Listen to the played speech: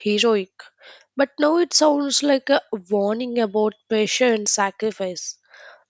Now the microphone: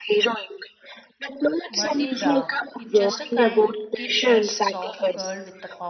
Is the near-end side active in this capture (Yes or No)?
Yes